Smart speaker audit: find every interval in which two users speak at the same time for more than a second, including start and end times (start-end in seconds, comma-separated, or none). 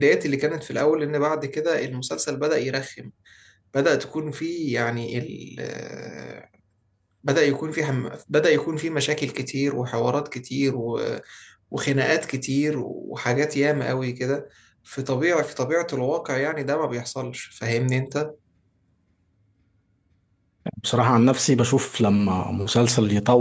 none